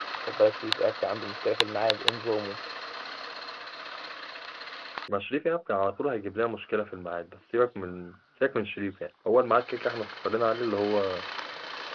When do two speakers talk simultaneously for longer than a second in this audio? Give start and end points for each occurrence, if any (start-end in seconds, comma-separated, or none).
none